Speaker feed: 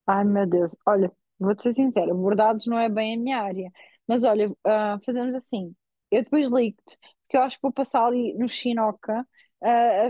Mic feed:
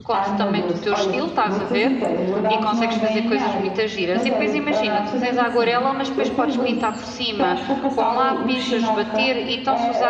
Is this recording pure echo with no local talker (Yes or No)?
No